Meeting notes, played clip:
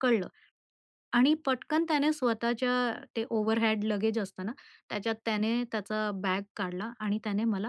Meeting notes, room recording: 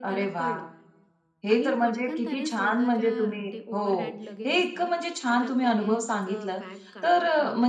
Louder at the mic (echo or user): user